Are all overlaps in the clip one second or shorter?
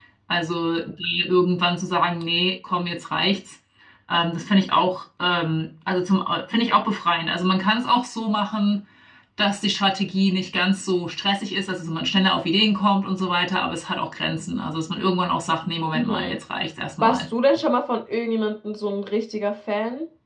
Yes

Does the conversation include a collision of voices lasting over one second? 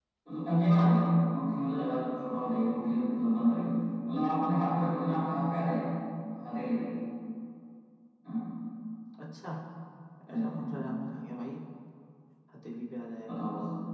No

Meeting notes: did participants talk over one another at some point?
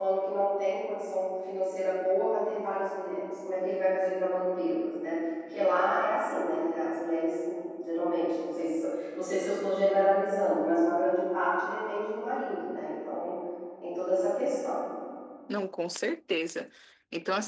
No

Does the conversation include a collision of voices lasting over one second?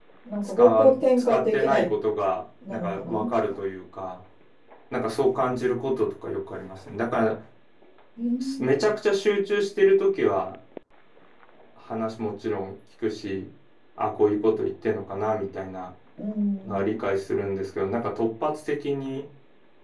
Yes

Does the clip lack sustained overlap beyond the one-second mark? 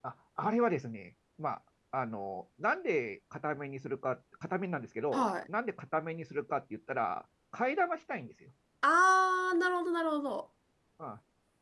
Yes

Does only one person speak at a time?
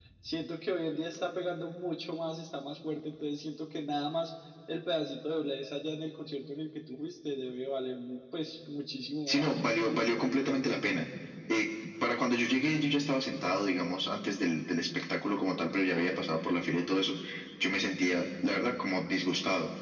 No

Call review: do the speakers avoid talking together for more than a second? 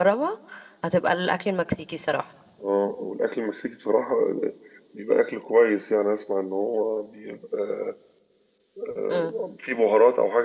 Yes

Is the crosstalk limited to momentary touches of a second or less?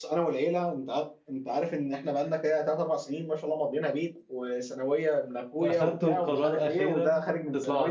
No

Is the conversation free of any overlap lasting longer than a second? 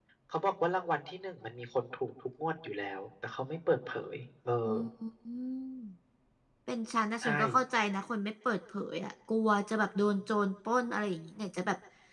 Yes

